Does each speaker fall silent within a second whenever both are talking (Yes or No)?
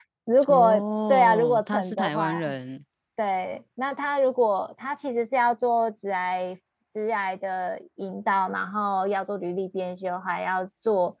No